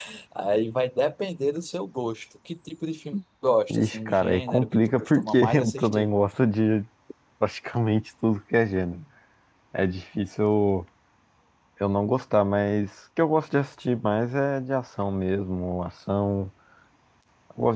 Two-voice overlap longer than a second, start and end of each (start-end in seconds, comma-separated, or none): 3.7-6.1